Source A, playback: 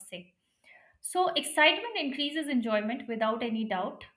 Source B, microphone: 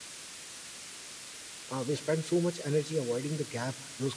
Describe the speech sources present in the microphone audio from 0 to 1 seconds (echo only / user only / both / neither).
neither